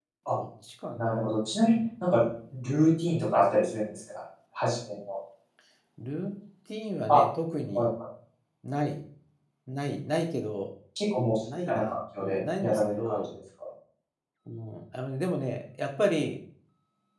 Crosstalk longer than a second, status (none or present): present